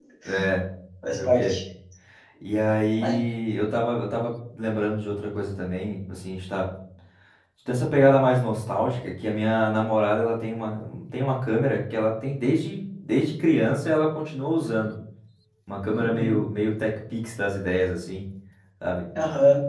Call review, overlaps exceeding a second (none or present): none